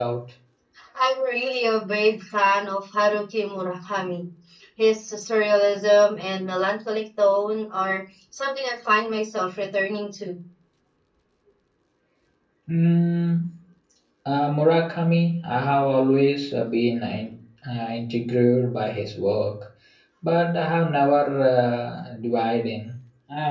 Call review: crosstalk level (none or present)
none